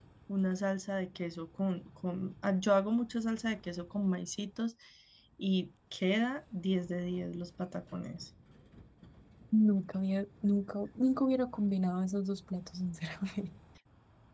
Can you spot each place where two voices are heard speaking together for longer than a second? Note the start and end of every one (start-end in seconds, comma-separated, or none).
none